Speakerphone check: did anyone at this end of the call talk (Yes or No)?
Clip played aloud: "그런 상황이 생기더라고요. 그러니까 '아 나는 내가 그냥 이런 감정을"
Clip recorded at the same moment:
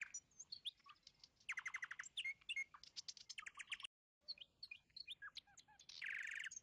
No